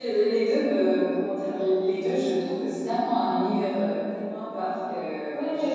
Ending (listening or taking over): taking over